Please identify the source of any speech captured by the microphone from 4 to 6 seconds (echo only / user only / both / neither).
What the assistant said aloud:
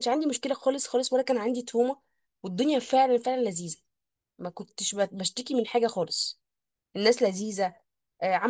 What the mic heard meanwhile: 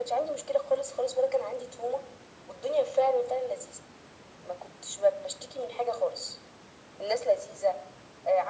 echo only